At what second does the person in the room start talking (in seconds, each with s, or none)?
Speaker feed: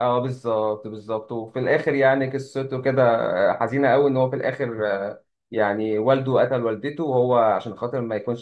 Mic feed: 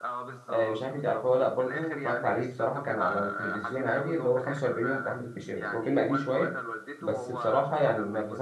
0.5 s